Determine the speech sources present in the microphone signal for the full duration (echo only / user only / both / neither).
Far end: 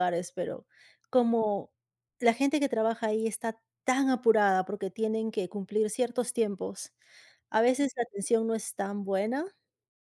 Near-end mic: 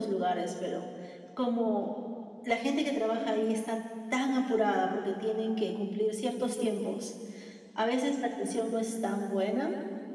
echo only